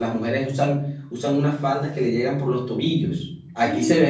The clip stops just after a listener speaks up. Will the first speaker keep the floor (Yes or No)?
No